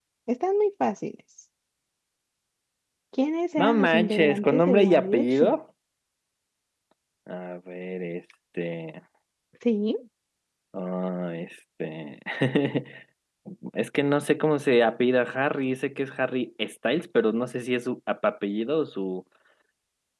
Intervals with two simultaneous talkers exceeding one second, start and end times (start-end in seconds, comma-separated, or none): 3.6-5.5